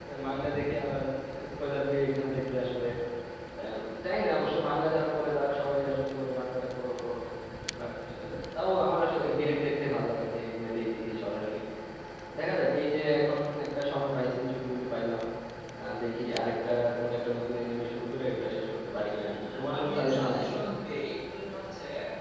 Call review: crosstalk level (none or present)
present